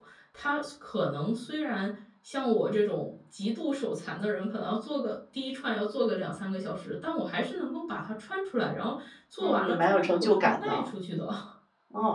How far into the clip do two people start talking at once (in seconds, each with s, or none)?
9.4 s